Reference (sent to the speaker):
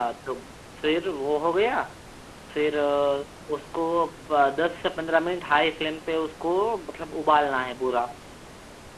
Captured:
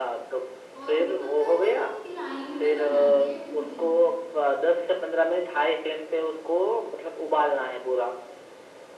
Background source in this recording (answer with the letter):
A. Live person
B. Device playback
A